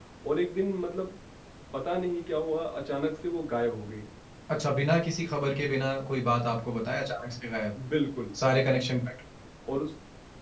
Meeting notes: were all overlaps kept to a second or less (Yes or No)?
Yes